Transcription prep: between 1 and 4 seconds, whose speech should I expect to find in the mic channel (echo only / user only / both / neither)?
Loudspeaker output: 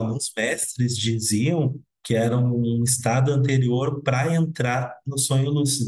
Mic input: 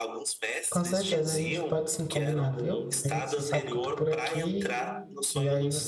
both